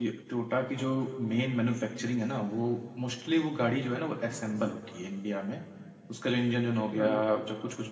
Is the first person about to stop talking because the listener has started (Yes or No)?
No